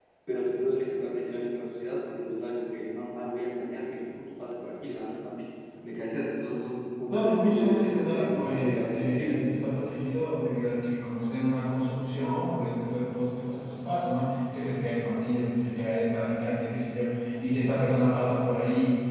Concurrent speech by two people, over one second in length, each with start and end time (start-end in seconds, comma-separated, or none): 7.1-9.4